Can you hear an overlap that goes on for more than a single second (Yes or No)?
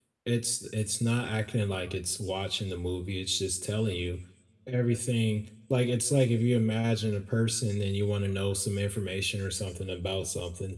No